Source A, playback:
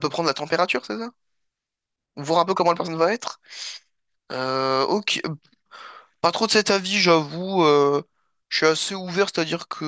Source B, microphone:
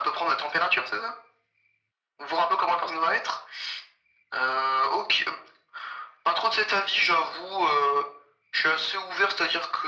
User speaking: No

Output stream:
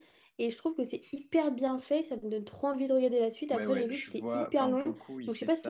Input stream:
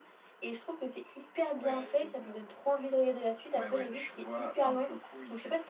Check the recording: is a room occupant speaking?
Yes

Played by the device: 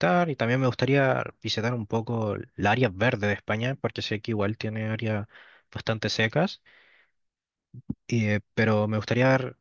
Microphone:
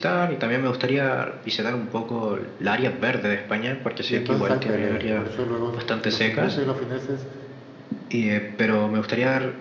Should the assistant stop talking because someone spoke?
Yes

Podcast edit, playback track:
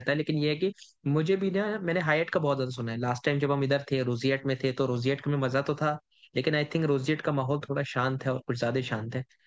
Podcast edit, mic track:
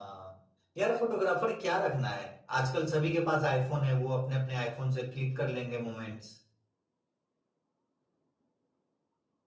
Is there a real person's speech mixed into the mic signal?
Yes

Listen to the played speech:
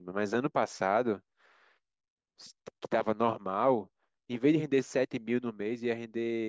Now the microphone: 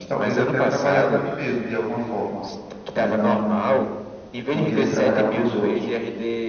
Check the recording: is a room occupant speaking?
Yes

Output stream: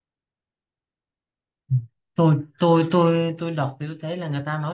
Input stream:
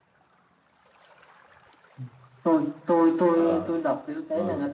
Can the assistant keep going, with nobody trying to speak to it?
No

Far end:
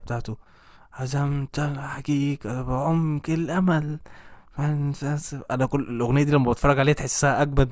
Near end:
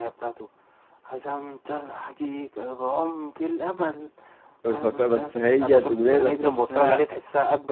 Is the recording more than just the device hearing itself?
Yes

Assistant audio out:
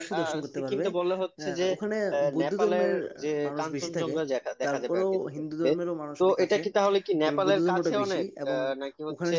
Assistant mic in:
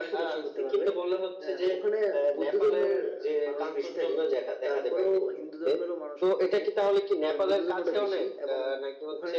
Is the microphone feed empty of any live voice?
Yes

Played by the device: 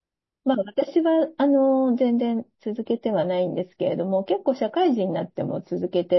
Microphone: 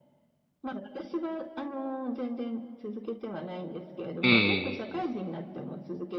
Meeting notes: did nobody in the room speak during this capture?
No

